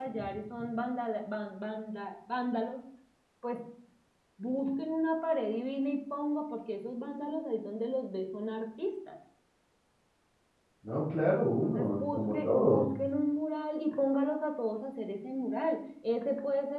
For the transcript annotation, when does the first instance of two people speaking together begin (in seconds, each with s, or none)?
11.6 s